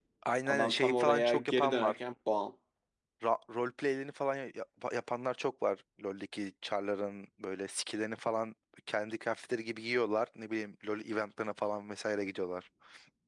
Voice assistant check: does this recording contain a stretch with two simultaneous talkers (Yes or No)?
Yes